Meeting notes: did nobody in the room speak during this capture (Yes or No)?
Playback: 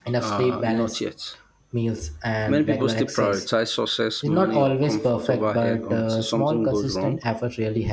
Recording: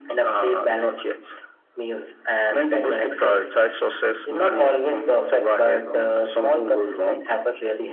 Yes